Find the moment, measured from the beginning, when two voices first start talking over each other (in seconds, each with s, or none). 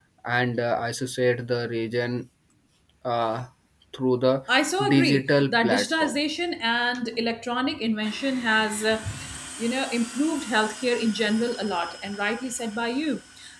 4.9 s